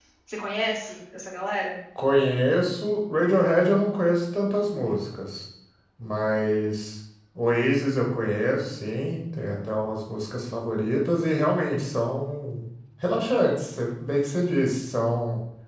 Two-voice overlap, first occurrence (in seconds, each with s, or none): none